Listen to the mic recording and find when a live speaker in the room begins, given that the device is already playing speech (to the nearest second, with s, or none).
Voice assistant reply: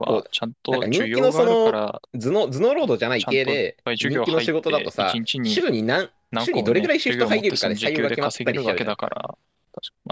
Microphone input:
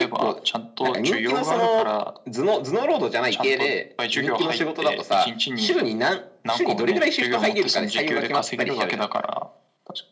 none